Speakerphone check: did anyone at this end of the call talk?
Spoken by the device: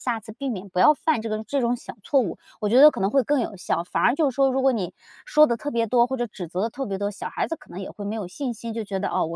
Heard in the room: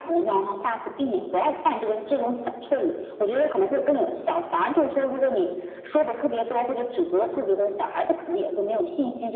No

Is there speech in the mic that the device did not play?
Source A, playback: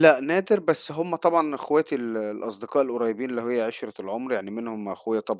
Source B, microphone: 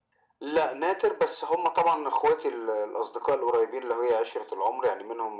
No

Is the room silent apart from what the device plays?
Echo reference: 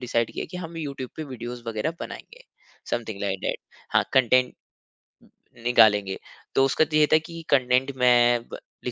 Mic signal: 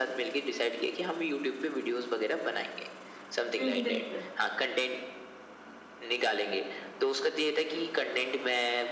No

